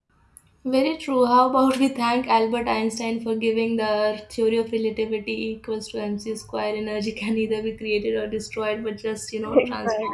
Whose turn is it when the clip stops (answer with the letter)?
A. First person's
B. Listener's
A